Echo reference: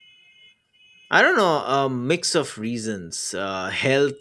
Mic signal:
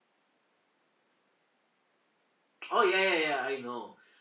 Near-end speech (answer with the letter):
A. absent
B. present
B